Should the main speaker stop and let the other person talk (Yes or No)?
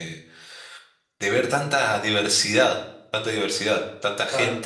Yes